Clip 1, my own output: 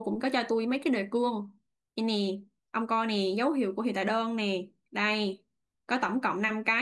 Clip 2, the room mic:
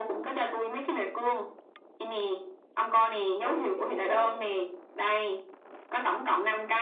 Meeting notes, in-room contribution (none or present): present